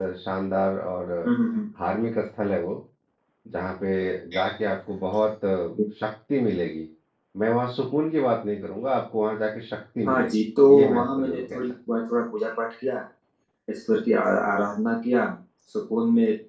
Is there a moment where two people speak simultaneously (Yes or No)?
Yes